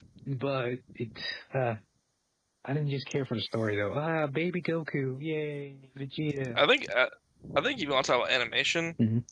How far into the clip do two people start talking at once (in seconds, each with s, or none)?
none